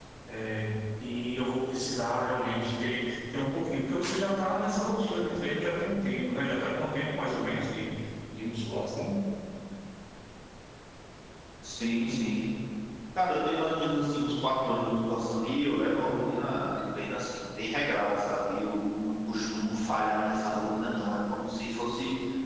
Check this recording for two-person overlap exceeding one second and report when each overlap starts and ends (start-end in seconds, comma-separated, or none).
none